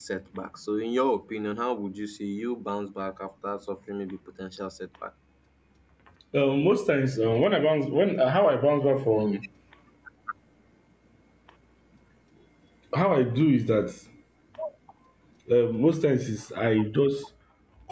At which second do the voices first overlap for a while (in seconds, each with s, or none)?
none